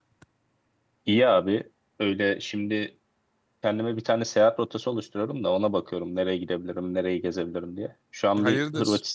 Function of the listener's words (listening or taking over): listening